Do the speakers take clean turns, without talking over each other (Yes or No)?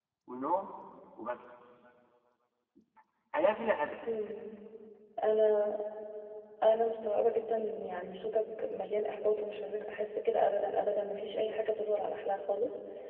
Yes